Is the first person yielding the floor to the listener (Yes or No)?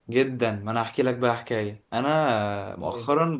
No